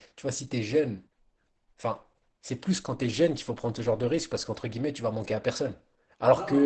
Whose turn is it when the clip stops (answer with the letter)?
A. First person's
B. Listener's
A